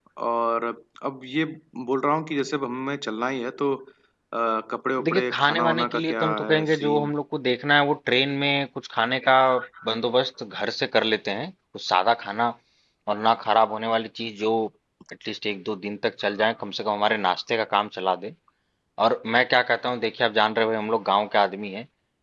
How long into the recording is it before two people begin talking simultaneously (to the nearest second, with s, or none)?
5 s